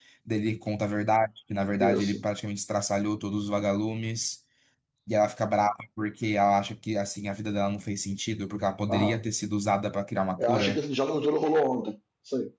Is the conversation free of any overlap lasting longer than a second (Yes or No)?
Yes